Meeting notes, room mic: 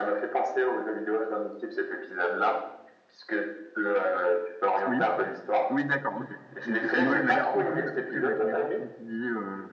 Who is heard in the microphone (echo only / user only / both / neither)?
both